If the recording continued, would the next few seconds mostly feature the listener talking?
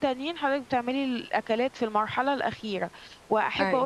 No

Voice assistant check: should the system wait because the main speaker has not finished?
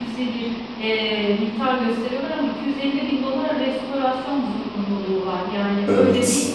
Yes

